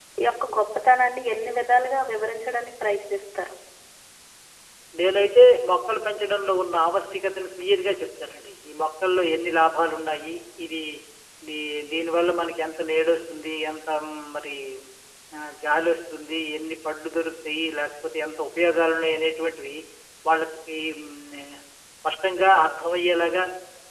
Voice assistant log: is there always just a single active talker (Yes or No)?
Yes